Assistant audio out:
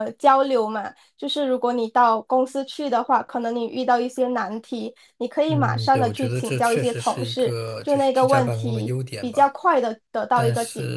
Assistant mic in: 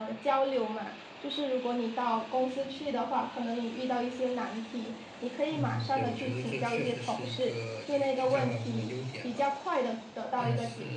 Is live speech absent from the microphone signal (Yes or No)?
Yes